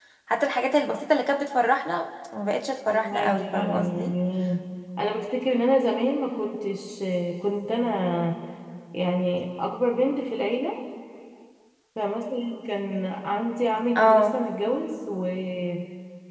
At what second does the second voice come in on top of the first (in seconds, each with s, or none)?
2.9 s